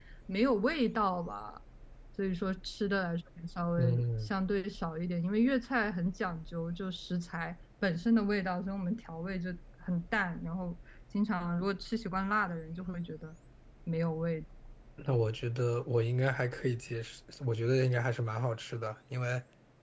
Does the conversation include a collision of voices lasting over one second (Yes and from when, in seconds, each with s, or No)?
No